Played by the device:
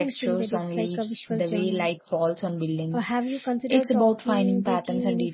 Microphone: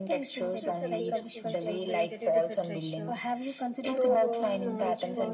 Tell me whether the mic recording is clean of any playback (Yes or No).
No